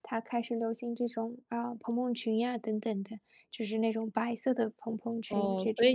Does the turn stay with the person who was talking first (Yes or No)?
No